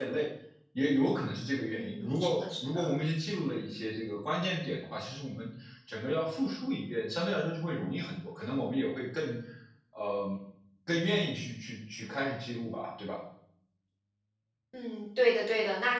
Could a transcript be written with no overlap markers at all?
No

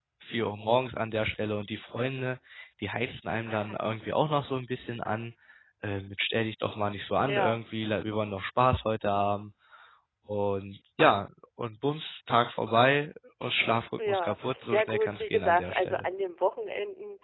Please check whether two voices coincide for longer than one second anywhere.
Yes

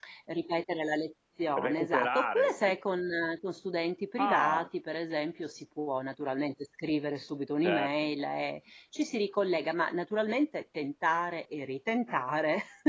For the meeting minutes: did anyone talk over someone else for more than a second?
Yes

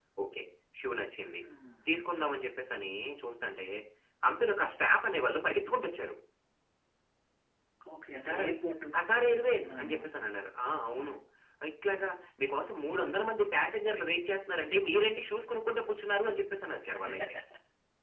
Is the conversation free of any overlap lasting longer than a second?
Yes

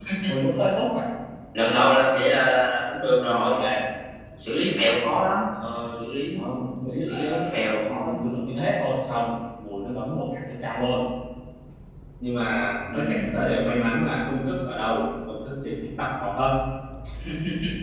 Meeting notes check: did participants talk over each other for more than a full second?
No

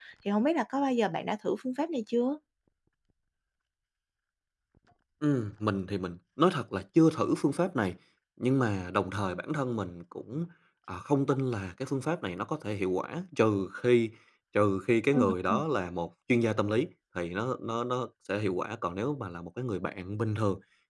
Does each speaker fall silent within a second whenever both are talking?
Yes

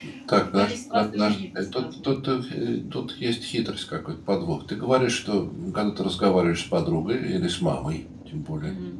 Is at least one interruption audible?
Yes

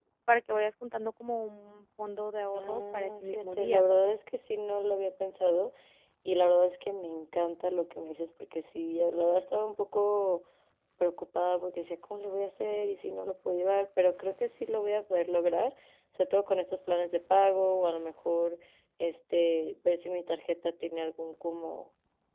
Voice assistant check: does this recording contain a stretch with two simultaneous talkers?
Yes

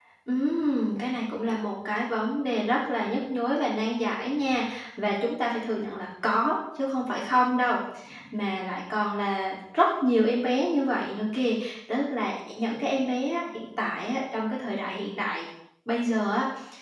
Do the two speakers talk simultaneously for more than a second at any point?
No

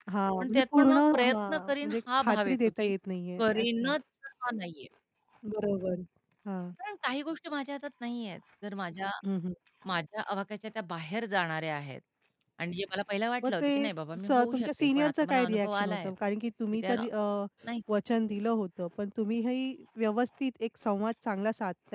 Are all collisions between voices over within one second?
No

